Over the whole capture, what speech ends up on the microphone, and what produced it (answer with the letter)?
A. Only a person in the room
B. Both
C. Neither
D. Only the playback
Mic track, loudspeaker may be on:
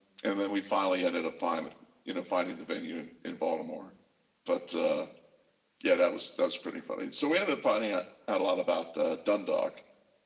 D